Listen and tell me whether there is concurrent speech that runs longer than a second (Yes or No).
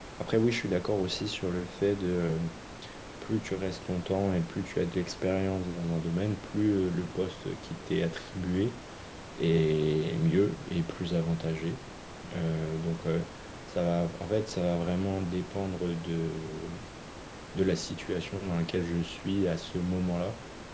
No